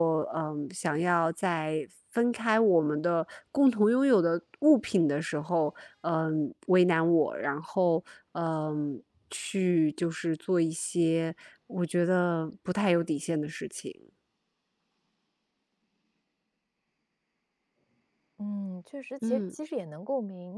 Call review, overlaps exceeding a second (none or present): none